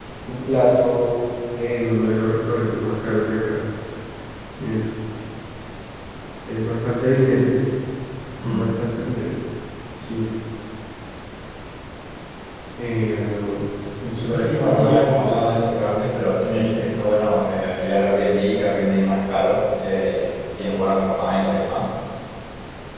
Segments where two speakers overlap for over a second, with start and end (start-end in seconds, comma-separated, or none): 14.1-15.4